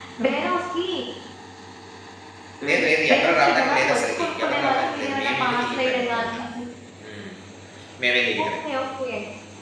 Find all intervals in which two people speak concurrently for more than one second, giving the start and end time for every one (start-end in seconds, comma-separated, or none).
2.7-6.4